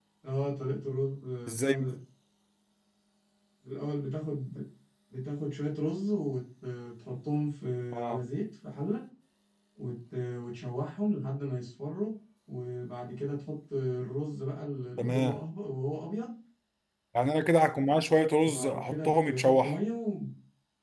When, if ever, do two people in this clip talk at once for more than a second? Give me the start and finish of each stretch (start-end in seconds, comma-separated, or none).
18.4-19.8